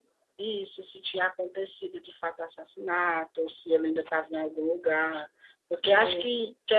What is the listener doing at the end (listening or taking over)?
listening